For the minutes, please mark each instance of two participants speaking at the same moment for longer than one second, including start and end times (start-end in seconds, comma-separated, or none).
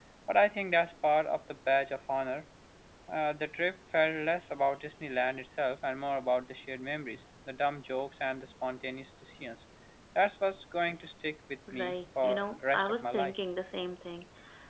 11.7-13.3